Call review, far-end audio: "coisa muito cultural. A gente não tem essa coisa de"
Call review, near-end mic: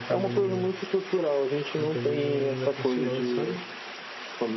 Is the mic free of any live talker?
No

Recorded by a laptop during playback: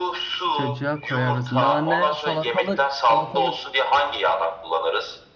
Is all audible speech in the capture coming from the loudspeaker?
No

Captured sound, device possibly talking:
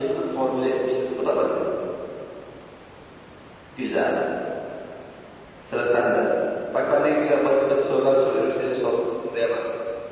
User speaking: No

